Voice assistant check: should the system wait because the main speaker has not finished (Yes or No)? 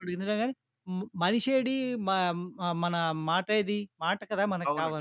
No